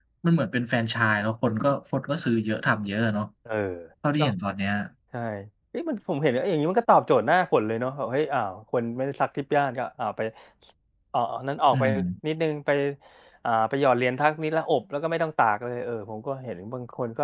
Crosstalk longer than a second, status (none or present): none